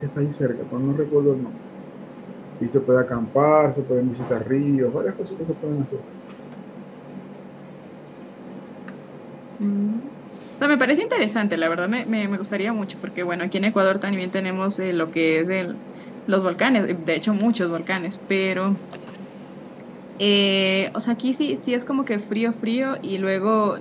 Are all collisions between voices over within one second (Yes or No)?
Yes